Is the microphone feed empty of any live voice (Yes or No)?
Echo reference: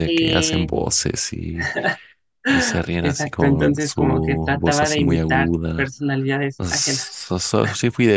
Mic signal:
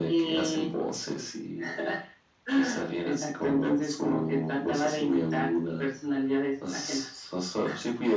Yes